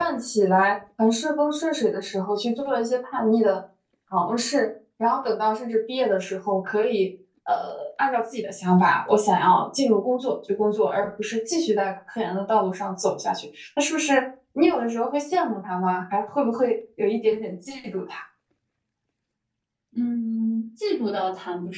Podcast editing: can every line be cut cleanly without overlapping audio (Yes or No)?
Yes